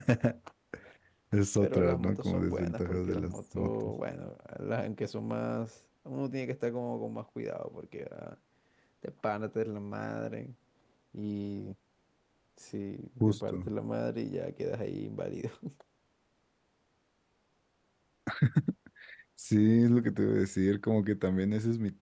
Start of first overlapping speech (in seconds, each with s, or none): 1.6 s